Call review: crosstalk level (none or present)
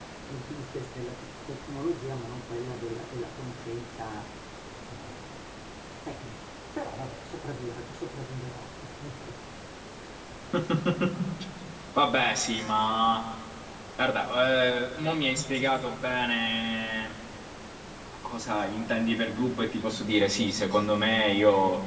none